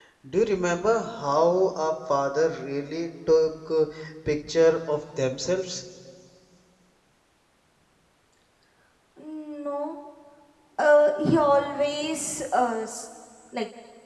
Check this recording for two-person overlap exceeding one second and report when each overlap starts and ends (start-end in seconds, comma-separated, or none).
none